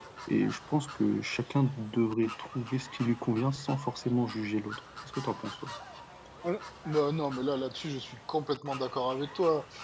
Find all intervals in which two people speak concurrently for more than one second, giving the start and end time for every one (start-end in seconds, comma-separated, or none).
none